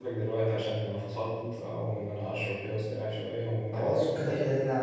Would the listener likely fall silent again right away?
No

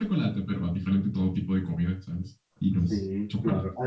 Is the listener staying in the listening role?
No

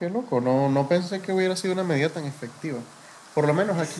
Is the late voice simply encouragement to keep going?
Yes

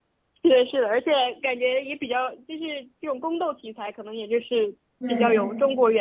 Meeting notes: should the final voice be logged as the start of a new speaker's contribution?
No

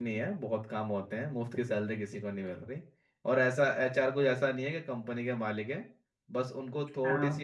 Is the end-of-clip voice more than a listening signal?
No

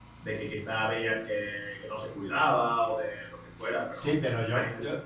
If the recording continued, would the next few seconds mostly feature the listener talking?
Yes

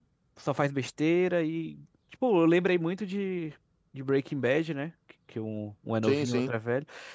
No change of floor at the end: Yes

